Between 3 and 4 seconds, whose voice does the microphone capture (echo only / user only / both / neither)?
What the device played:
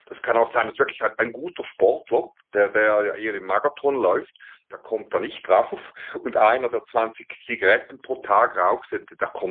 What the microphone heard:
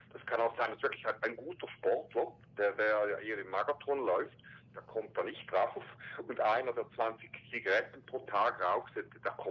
echo only